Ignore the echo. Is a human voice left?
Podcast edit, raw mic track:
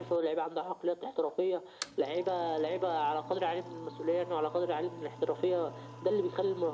No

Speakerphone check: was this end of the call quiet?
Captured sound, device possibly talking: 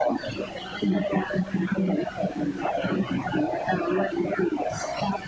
No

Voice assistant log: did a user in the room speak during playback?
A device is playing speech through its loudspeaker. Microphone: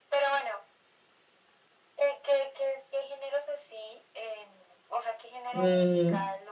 Yes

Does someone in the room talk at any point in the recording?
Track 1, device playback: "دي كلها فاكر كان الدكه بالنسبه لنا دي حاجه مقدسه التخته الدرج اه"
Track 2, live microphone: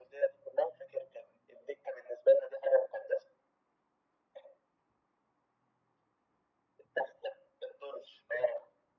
No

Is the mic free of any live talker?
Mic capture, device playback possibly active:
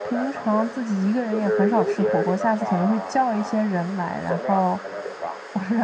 No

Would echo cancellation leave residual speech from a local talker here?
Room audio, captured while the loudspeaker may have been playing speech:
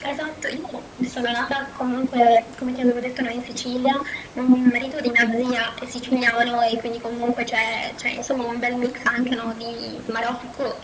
No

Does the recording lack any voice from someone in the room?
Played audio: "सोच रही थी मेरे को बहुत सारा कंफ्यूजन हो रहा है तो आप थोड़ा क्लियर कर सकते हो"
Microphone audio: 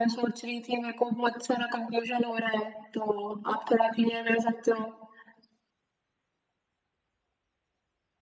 Yes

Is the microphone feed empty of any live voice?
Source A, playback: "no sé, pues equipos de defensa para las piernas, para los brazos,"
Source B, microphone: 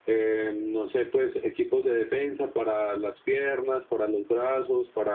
Yes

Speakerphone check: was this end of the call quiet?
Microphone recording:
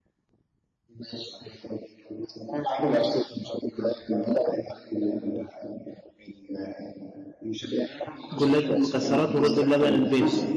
No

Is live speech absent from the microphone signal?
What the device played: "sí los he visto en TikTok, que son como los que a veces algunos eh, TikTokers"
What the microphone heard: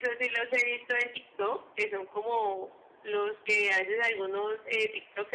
Yes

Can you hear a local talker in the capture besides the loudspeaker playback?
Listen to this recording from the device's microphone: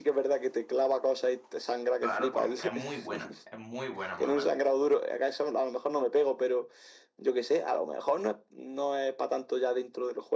Yes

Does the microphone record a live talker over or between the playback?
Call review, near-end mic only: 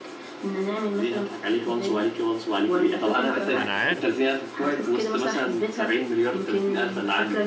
Yes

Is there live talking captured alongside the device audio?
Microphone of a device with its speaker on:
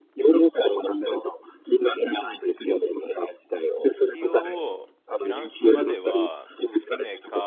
Yes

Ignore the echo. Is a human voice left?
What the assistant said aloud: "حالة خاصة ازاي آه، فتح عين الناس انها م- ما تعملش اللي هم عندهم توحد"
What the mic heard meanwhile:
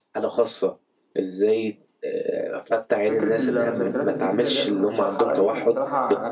Yes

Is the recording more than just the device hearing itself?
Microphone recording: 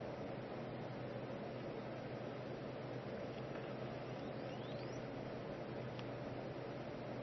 No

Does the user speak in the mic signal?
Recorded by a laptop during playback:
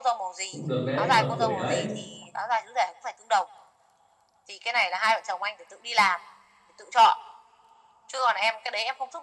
Yes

